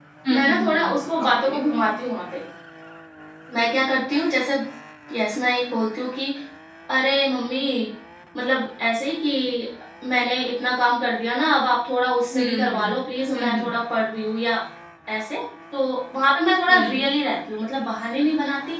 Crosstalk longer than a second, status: present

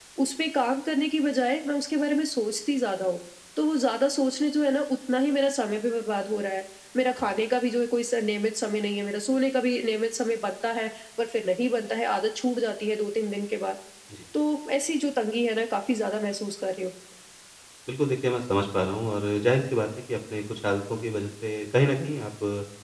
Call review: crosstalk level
none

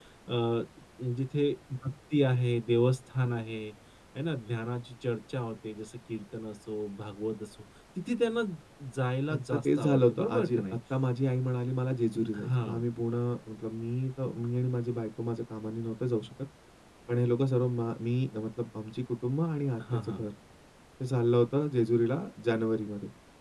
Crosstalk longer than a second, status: present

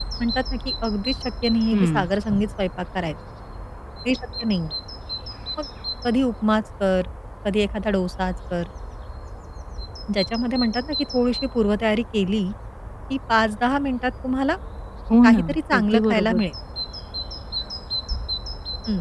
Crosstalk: present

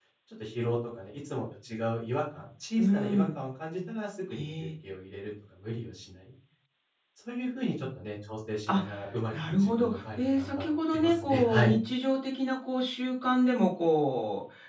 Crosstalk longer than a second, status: present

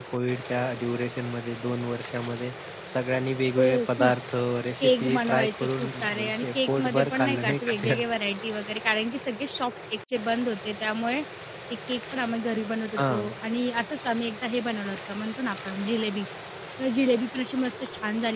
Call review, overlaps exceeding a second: present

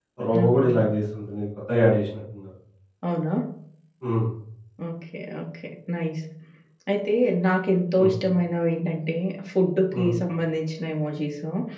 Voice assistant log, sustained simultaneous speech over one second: none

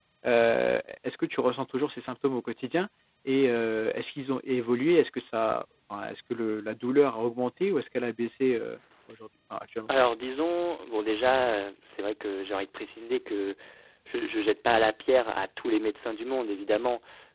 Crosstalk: none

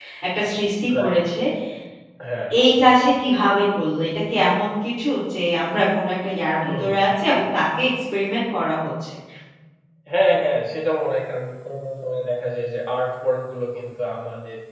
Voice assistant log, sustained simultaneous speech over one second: none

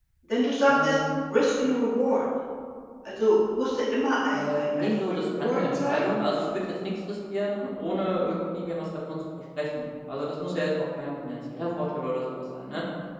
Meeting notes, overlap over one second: present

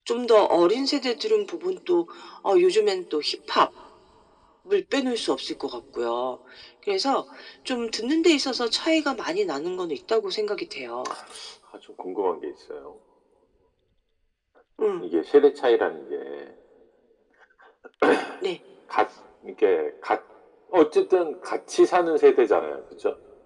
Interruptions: none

